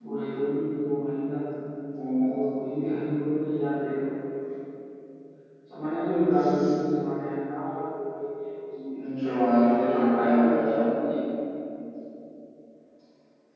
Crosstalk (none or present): present